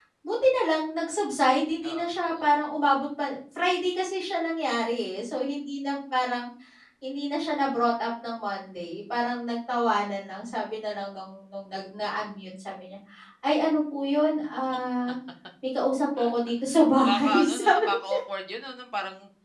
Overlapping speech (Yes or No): Yes